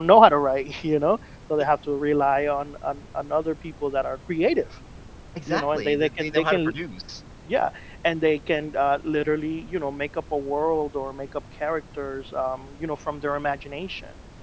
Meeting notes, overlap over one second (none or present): present